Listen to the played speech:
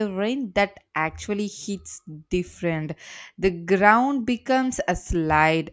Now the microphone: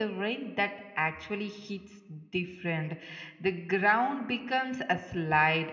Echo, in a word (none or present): present